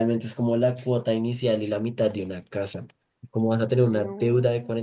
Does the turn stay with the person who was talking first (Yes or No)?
Yes